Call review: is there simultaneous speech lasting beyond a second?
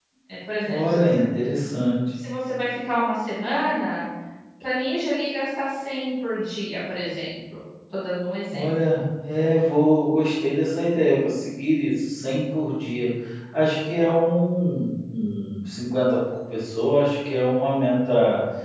No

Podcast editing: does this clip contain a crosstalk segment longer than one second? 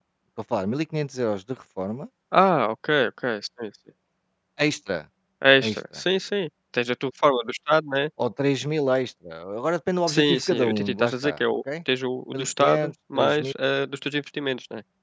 Yes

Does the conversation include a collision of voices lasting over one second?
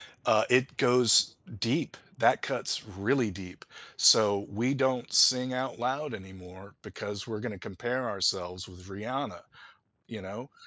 No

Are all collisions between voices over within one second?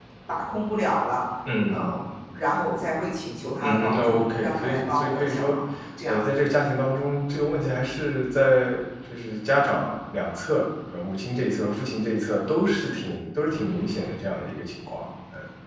No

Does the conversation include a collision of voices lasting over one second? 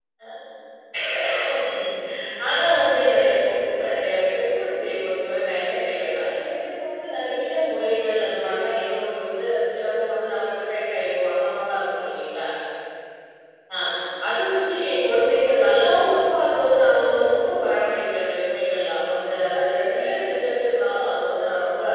Yes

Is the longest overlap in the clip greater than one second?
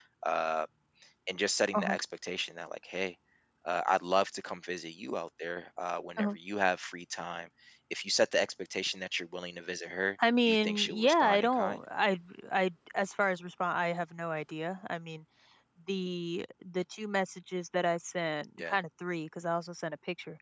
Yes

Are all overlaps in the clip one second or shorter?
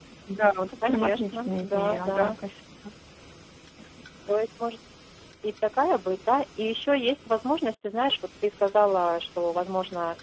No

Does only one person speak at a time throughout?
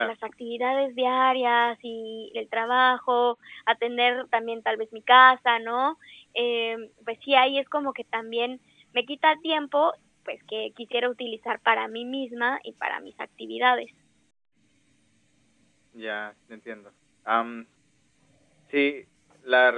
Yes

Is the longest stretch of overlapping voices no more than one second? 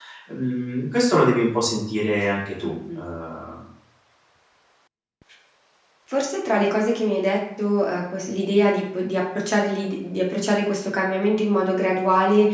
Yes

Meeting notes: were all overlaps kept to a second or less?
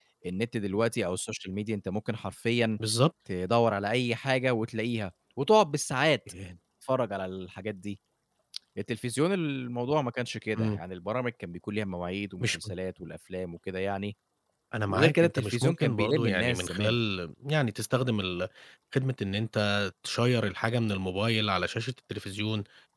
No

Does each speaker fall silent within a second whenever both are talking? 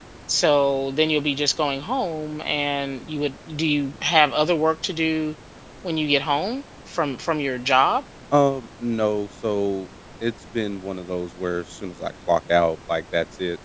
Yes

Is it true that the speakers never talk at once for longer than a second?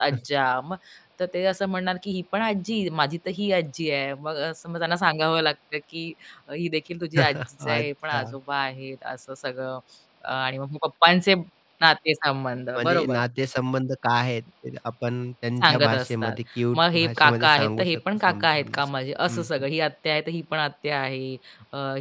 No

